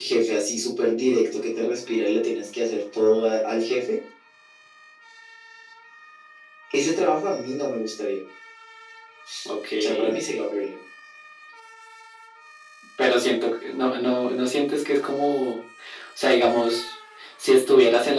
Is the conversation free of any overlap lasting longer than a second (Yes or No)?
Yes